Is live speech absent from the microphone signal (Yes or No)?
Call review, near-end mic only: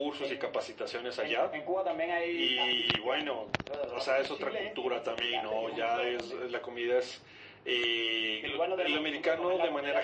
Yes